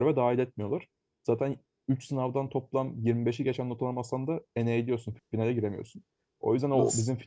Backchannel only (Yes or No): Yes